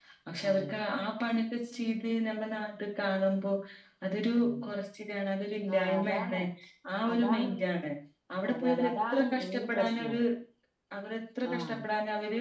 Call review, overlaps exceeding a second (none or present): present